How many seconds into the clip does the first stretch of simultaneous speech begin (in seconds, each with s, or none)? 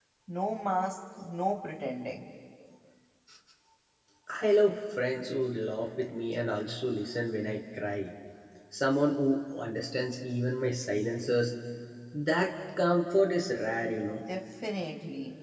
none